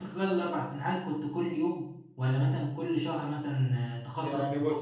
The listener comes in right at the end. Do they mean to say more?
Yes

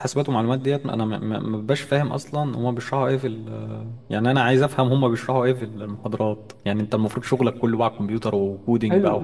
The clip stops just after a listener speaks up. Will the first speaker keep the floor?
No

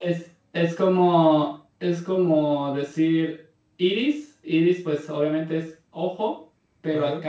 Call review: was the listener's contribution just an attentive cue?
Yes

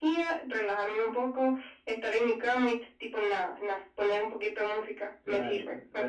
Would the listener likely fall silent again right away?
No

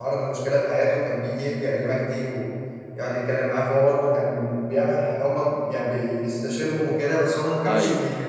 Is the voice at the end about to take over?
No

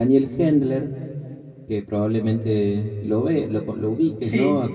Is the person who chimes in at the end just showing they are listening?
Yes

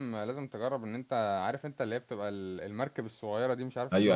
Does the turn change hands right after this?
Yes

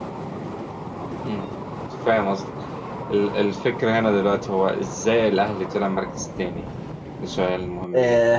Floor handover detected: Yes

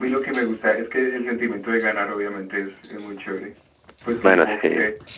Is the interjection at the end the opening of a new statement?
No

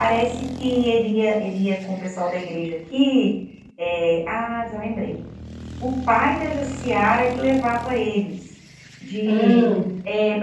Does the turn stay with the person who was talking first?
Yes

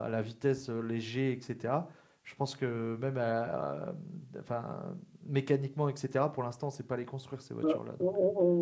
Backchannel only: No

